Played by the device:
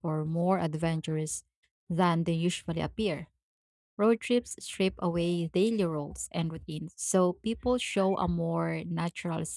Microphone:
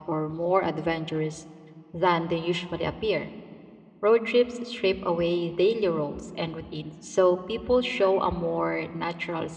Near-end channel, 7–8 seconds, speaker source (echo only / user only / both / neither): echo only